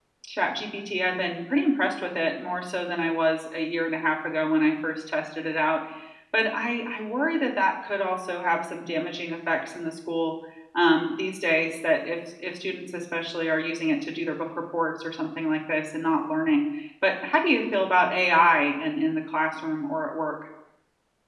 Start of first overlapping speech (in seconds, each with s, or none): none